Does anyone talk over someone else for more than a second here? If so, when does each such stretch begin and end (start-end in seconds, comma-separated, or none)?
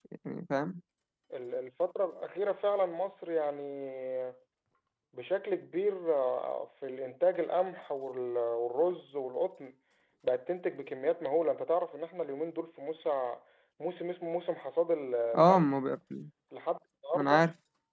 none